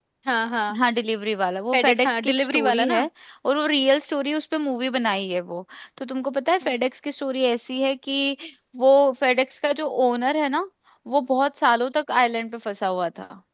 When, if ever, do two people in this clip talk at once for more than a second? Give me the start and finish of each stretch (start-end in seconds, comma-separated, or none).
1.7-3.0